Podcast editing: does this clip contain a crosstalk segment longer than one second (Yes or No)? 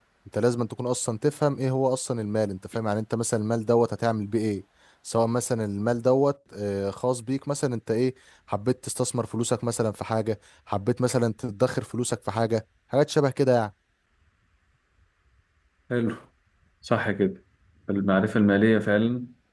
No